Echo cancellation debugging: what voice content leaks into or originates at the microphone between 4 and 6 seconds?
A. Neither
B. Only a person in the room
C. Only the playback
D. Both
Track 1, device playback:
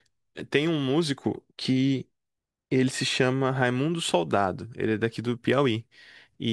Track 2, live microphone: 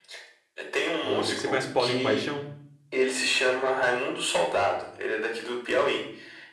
C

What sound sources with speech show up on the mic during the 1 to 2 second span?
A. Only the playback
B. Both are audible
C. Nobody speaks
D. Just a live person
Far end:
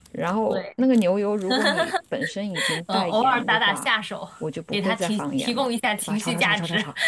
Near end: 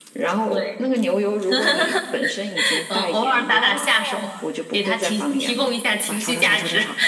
A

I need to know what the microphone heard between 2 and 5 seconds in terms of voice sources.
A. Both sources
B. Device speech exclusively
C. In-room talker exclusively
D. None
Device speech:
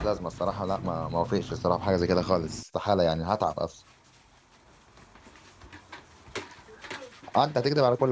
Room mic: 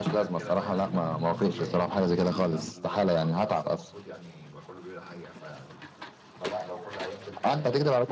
A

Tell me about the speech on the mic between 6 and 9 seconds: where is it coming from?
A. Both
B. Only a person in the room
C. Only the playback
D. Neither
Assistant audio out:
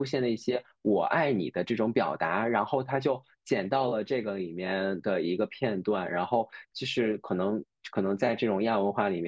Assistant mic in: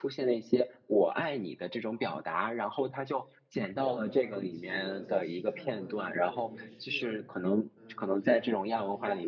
A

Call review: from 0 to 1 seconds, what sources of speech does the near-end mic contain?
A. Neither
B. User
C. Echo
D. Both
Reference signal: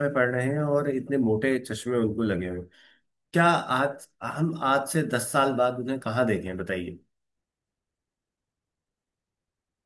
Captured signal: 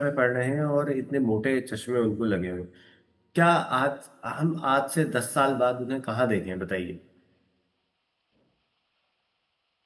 C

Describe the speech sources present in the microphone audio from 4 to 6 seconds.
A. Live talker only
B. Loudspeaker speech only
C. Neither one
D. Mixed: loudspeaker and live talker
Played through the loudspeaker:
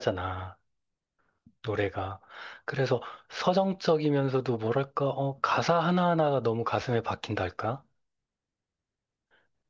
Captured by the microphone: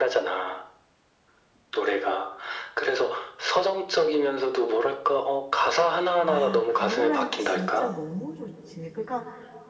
B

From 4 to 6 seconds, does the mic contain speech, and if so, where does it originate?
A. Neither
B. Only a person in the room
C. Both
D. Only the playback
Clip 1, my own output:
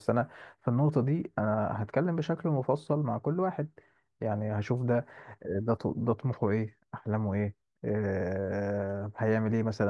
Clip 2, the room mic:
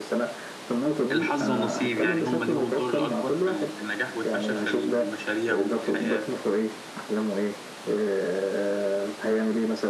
C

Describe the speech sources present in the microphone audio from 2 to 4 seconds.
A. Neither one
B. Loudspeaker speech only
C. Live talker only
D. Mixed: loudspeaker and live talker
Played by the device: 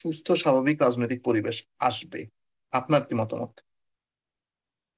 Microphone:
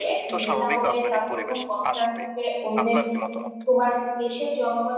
D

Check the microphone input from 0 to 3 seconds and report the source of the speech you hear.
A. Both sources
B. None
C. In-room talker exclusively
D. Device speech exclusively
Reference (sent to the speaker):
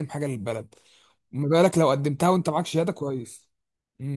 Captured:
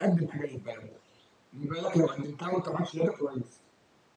D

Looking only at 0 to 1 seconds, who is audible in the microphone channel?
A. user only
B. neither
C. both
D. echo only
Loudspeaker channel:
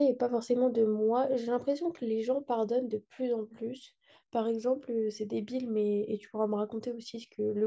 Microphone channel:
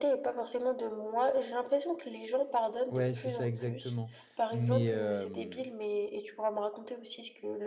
D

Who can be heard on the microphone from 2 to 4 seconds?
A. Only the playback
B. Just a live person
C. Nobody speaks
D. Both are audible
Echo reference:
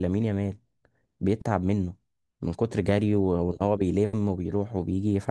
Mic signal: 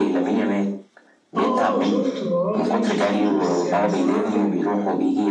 D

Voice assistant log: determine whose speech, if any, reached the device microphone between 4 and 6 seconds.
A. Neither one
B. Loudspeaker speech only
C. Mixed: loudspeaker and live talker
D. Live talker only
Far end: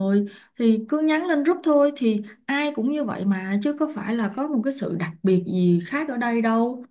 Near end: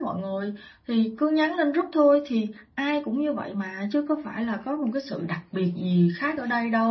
B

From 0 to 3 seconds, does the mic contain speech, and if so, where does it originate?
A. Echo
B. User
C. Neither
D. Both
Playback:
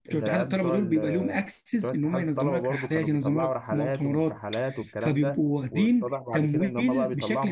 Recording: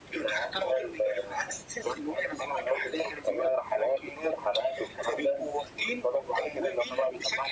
A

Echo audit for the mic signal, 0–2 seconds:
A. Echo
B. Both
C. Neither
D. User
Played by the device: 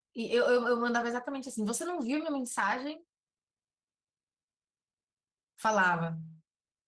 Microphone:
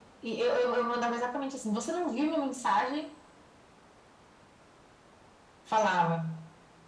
A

